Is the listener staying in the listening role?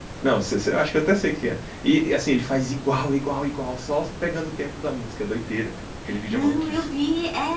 No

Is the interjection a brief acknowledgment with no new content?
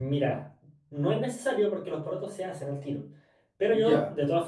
Yes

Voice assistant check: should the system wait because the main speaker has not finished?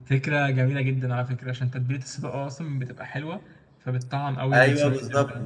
No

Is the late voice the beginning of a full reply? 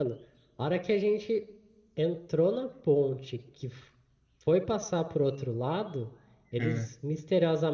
No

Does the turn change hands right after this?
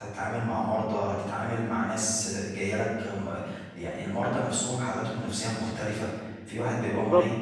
No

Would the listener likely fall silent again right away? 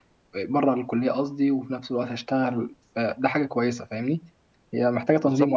No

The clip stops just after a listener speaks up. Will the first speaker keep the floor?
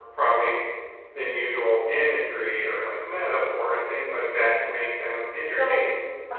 No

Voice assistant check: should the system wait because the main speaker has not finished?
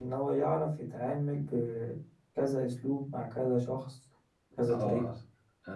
No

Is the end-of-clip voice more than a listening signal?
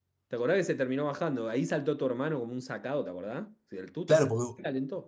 Yes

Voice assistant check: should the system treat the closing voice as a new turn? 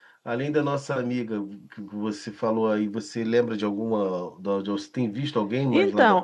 Yes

